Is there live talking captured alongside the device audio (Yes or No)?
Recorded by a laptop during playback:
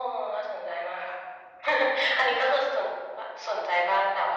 No